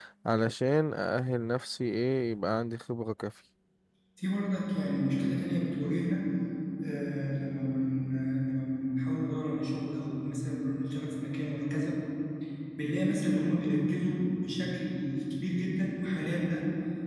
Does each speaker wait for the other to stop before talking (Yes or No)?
Yes